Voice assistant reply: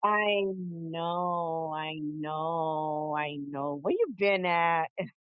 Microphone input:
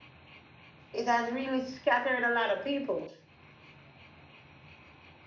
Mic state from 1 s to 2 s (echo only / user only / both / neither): user only